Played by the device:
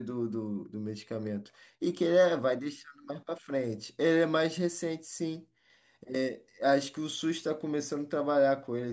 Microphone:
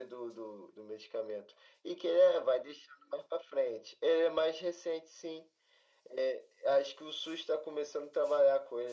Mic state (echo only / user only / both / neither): echo only